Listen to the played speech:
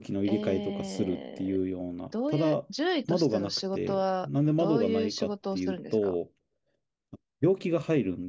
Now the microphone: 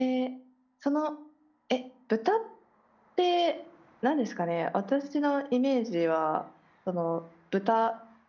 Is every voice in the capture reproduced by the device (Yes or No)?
No